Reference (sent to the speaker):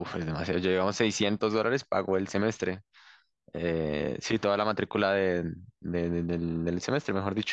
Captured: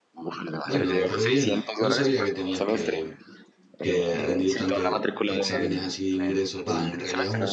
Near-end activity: present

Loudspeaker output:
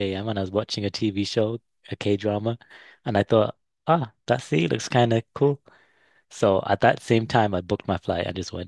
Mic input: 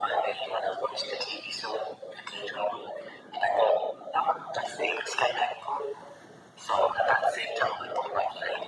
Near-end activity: none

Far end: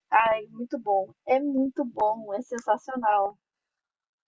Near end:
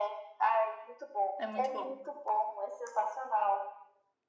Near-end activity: present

